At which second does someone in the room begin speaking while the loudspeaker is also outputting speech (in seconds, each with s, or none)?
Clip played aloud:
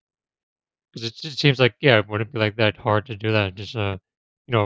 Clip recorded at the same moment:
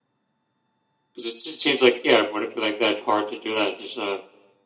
none